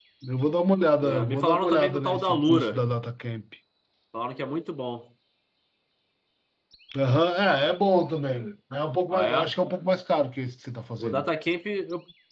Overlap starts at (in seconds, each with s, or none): 1.0 s